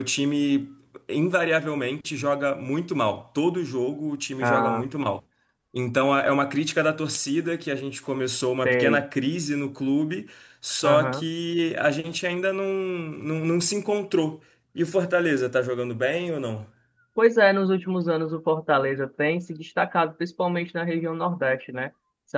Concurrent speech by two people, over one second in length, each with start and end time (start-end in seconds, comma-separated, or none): none